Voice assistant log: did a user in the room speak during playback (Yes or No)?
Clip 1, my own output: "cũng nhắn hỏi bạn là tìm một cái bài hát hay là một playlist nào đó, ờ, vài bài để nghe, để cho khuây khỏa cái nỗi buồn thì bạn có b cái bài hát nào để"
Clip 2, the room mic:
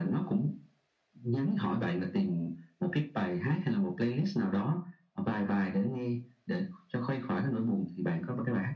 No